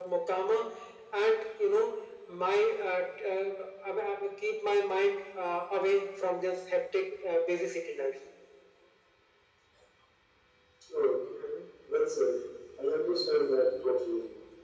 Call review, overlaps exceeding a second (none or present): none